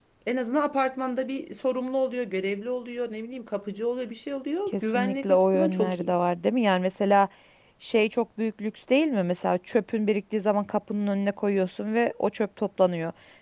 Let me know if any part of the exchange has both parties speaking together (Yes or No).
Yes